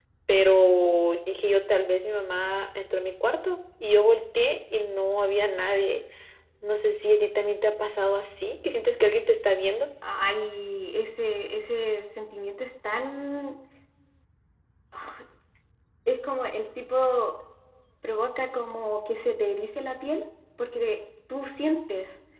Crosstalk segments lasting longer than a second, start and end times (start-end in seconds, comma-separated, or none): none